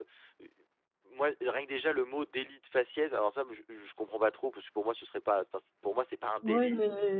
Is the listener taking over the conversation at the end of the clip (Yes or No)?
Yes